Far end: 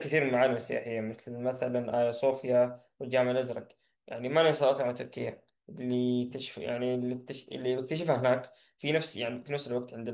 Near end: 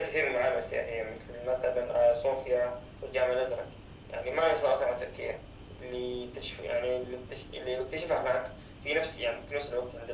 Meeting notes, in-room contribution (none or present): none